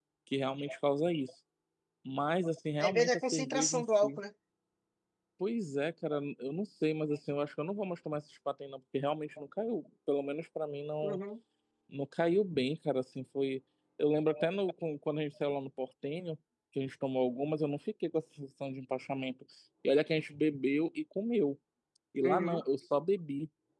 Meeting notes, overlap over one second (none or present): present